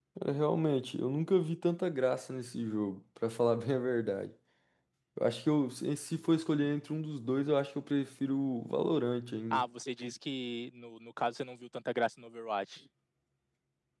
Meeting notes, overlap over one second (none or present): none